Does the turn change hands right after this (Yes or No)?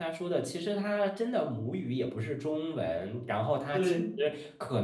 No